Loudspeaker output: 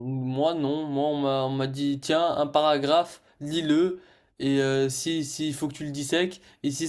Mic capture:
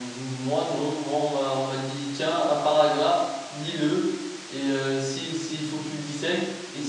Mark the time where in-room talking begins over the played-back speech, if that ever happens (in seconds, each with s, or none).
none